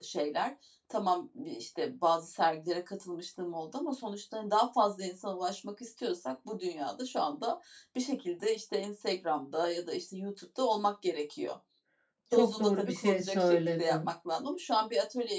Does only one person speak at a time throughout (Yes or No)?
No